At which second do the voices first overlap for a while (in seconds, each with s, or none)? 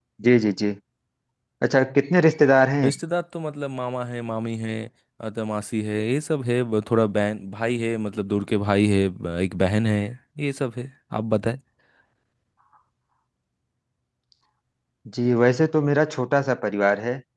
none